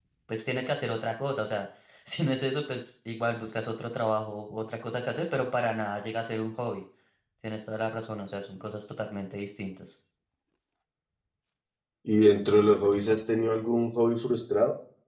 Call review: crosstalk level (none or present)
none